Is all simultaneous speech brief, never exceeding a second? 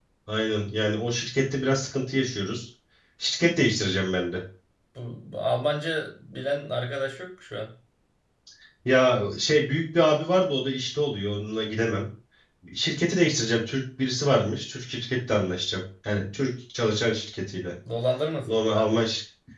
Yes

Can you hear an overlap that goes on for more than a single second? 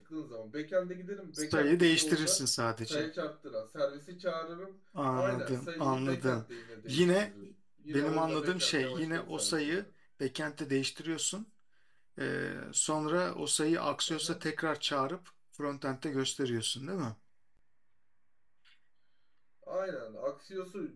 Yes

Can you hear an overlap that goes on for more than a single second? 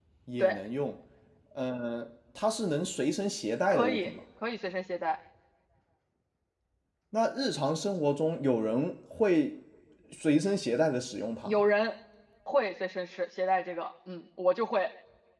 No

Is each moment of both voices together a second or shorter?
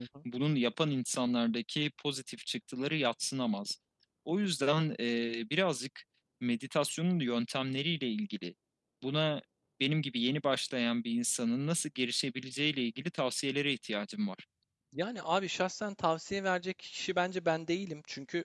Yes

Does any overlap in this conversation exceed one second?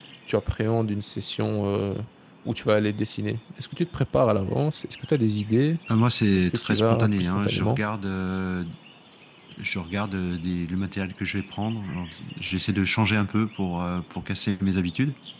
Yes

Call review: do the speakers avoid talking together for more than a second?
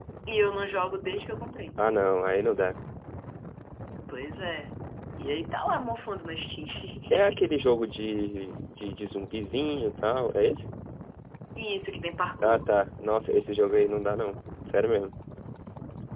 Yes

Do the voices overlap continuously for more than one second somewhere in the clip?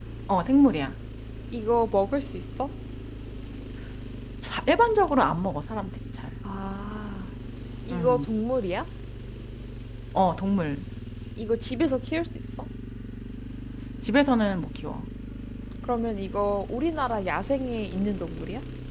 No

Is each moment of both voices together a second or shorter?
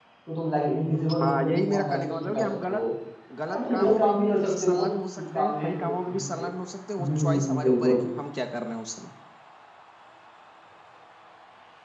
No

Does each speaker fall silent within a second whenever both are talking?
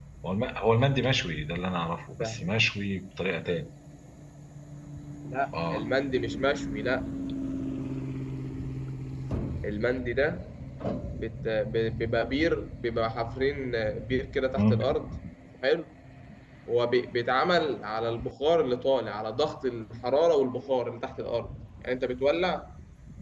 Yes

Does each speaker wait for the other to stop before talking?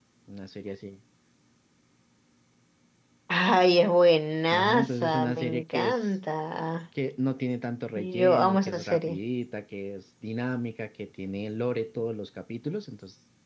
No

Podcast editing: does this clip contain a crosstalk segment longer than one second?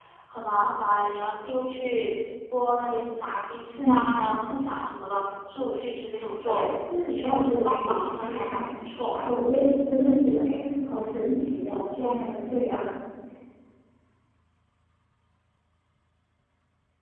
Yes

